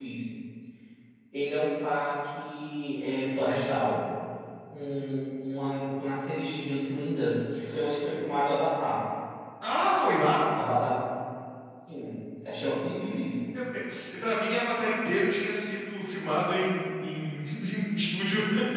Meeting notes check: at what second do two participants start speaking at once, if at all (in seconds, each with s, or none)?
none